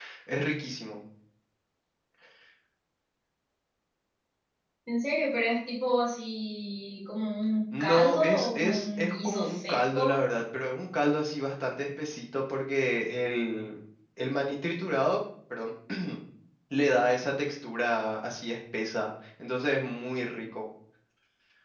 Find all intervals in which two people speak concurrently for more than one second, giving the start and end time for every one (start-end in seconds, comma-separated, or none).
7.8-10.2